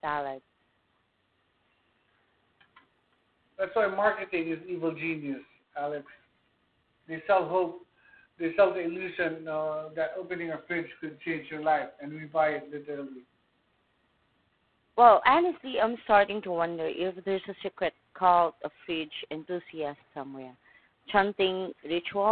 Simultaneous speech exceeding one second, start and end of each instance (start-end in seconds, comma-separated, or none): none